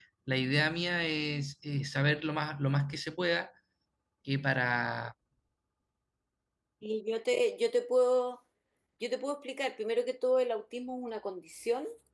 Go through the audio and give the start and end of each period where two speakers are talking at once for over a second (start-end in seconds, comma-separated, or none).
none